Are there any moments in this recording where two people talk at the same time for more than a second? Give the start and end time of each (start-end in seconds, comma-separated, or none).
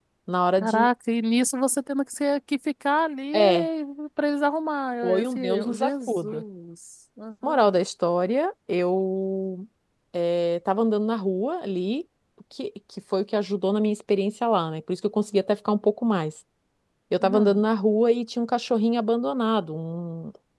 5.0-6.4